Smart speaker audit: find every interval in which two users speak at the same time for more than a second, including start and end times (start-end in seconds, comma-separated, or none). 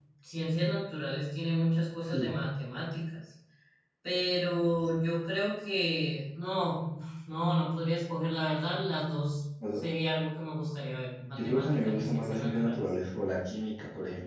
11.2-12.8